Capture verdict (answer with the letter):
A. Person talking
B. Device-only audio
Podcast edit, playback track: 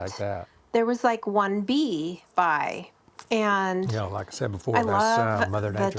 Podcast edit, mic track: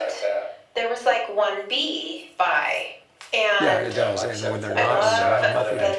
A